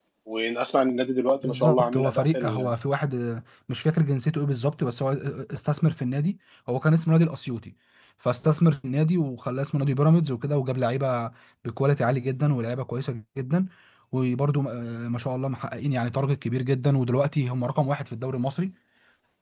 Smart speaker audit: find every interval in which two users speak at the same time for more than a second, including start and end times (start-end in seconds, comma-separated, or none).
1.4-2.7